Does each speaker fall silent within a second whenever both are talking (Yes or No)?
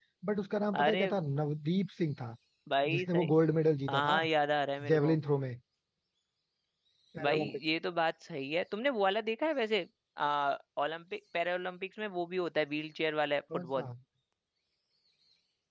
Yes